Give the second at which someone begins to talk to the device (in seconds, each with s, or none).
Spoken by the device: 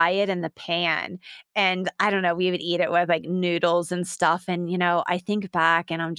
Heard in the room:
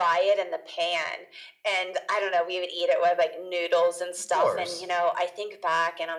4.3 s